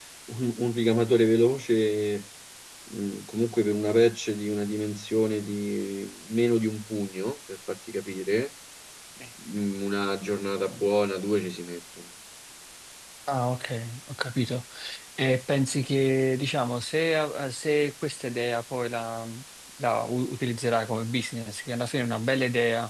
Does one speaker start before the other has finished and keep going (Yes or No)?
No